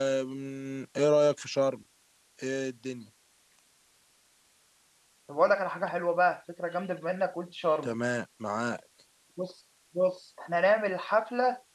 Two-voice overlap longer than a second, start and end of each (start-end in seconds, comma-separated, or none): none